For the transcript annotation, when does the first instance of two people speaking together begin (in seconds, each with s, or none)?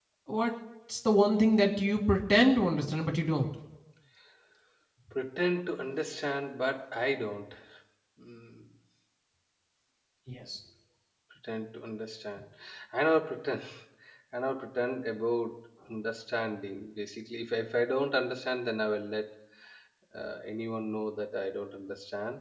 none